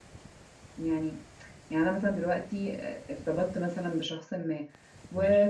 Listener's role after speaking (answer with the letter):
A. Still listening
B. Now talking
A